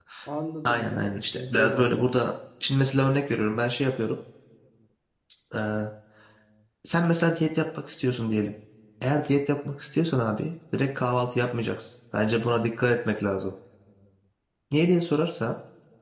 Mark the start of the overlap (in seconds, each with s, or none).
0.7 s